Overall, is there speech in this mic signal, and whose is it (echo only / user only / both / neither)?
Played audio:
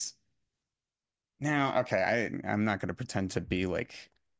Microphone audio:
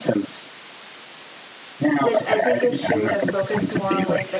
both